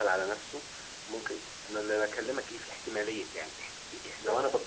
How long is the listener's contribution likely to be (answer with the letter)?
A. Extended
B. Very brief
B